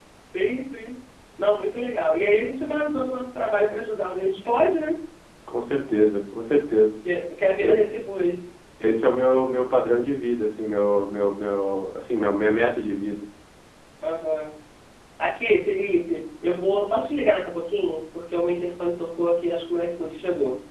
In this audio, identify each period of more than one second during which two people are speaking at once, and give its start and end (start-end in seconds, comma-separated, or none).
none